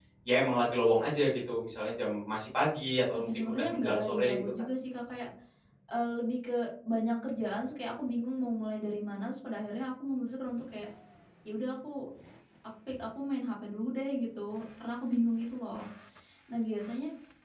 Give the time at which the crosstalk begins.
3.3 s

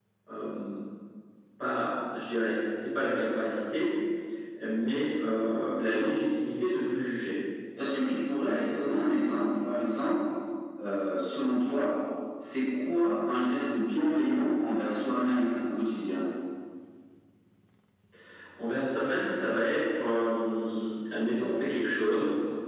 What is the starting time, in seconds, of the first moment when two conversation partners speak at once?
none

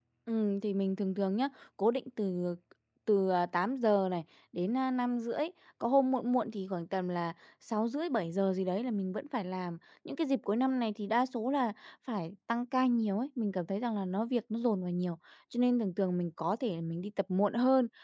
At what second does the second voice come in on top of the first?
none

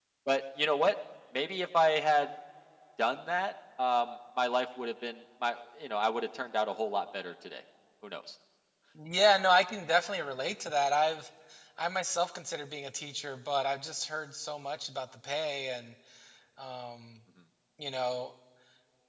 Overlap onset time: none

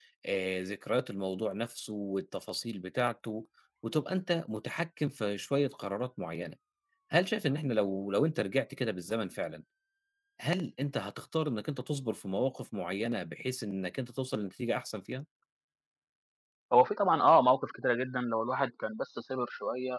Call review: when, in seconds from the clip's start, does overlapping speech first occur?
none

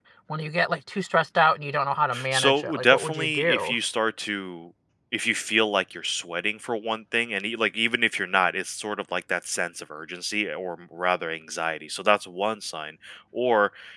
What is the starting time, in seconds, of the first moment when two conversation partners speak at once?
2.1 s

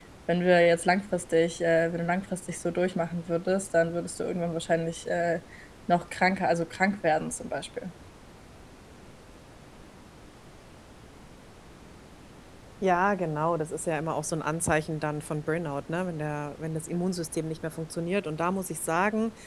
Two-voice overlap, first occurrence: none

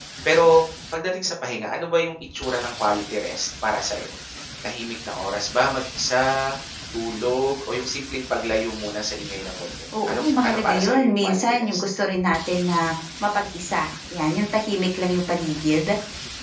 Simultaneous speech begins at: 9.9 s

